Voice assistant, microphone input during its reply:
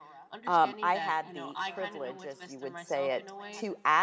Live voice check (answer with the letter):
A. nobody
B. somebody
B